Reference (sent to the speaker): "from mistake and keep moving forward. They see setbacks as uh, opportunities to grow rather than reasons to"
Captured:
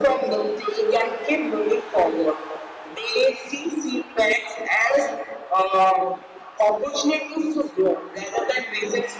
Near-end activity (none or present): none